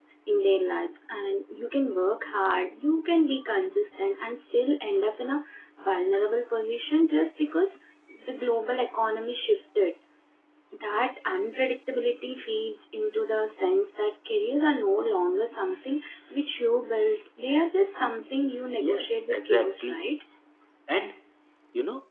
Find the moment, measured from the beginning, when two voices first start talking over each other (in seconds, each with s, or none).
18.8 s